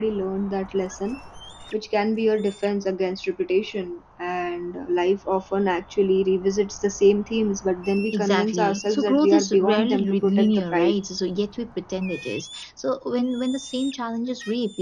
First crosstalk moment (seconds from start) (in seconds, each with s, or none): 8.1 s